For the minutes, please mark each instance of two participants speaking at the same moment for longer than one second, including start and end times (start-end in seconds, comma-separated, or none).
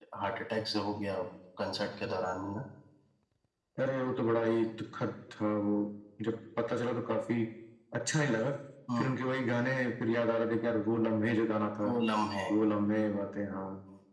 none